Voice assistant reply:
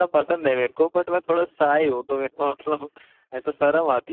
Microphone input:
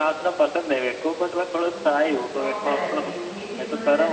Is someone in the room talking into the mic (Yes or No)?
Yes